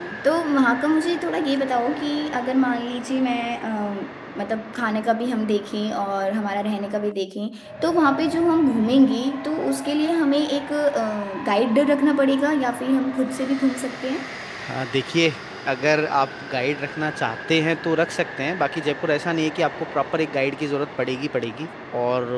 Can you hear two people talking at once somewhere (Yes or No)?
No